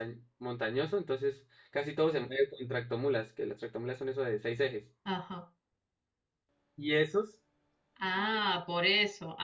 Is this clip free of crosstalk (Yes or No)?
Yes